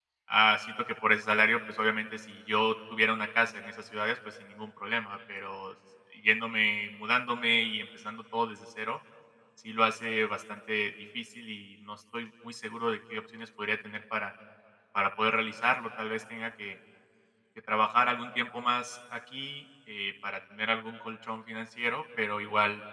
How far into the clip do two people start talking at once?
none

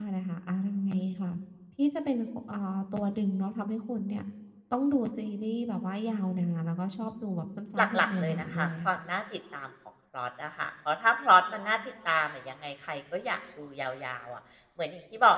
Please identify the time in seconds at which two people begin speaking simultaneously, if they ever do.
7.8 s

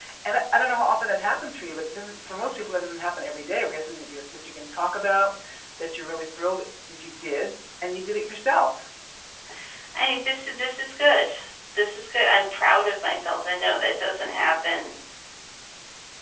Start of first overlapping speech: none

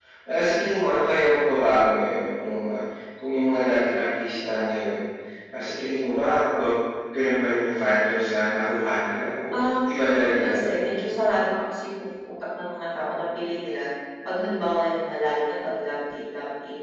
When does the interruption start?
9.5 s

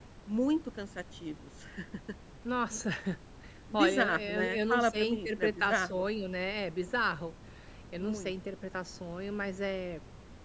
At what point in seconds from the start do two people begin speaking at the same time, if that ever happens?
3.7 s

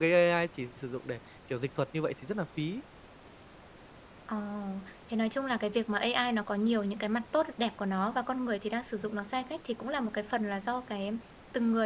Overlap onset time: none

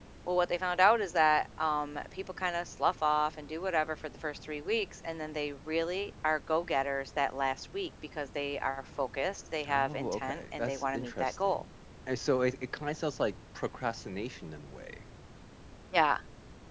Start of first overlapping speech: 9.6 s

